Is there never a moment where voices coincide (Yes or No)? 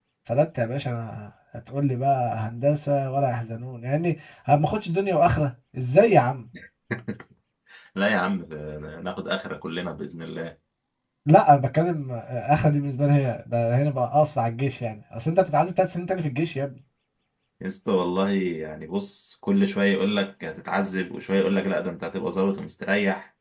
Yes